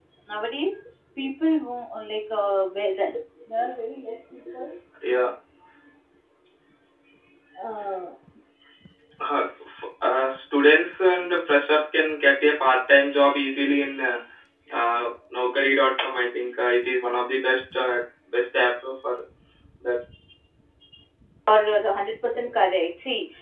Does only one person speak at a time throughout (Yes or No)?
Yes